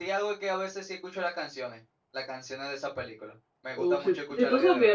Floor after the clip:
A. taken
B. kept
A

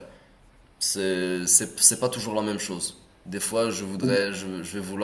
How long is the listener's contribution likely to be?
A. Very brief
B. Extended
A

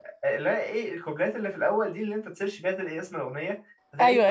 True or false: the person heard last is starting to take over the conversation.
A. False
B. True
A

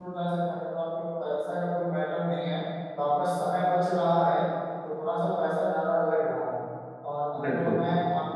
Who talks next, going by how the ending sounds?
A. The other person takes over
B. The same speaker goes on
B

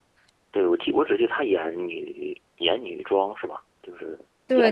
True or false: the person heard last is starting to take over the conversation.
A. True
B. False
A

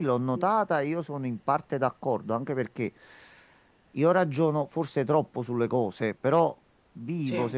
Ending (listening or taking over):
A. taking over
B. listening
B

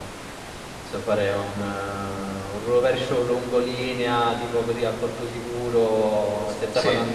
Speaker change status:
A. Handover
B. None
B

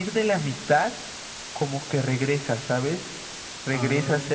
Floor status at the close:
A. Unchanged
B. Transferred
A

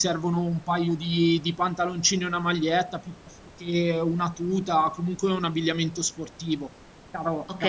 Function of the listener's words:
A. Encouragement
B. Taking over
B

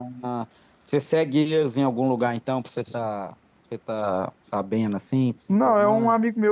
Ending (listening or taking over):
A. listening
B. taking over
B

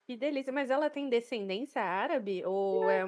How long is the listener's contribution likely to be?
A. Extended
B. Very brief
A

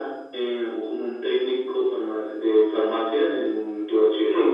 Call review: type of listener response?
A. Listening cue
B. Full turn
B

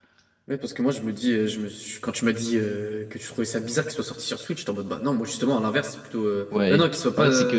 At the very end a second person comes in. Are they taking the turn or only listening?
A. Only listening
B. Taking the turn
B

